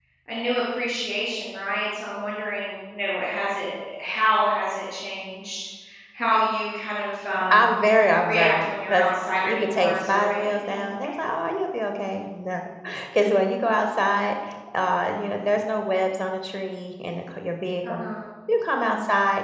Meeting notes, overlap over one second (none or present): present